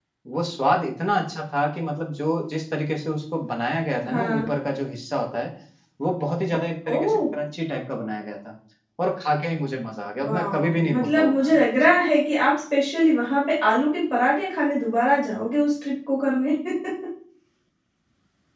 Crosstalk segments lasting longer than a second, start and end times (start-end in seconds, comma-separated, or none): 10.2-11.9